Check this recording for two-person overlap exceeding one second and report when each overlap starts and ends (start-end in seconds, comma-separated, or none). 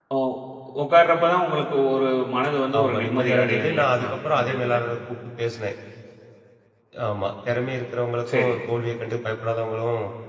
2.8-4.8